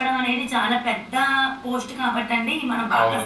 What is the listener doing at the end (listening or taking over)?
taking over